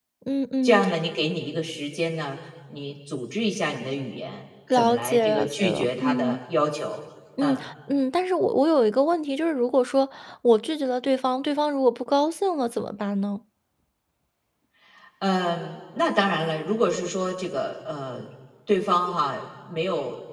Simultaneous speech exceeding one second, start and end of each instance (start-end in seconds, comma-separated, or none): 4.7-6.4